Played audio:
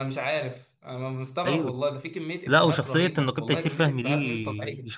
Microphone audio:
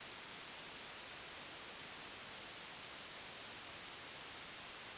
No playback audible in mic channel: Yes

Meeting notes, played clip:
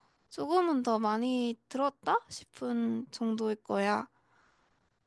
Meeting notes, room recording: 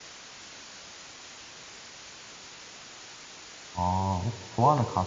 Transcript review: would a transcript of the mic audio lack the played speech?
Yes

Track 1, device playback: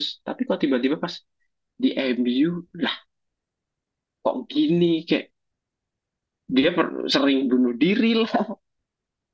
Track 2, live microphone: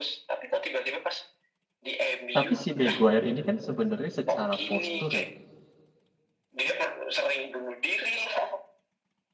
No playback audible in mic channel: No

